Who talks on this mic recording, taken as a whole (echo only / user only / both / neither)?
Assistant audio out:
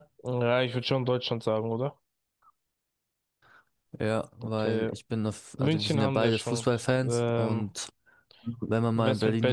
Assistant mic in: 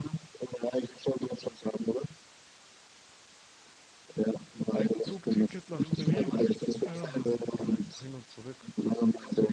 both